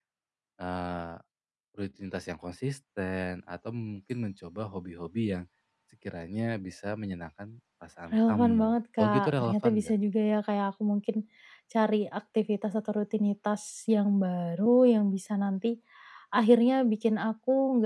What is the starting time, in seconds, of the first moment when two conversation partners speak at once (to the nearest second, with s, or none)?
8 s